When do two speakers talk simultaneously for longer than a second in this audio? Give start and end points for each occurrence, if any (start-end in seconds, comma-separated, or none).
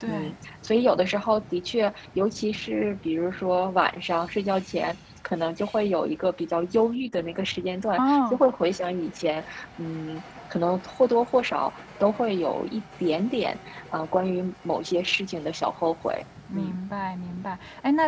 none